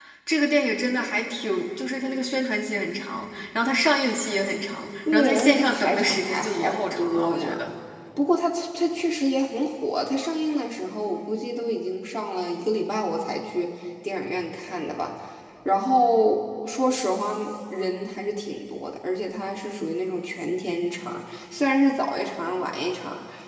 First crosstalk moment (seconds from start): 5.1 s

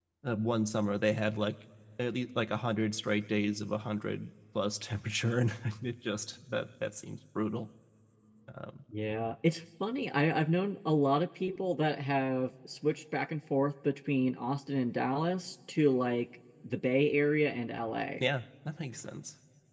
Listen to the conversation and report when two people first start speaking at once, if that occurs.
none

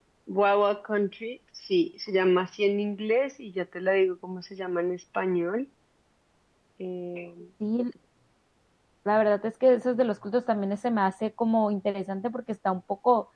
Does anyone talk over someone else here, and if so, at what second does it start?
none

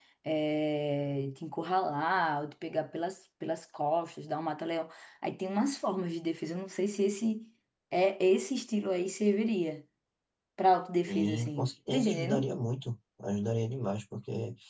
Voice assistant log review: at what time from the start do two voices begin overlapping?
11.1 s

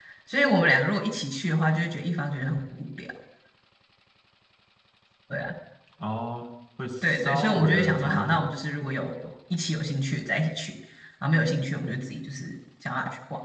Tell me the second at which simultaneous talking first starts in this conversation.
7.0 s

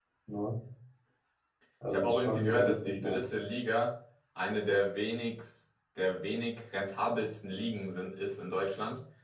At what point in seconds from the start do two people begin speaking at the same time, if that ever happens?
1.9 s

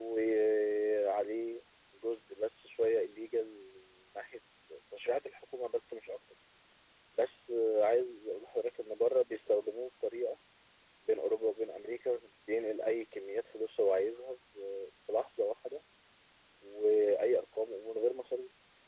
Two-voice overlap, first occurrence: none

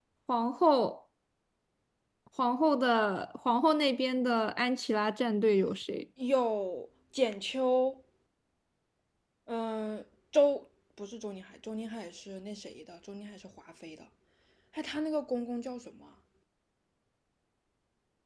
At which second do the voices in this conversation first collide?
none

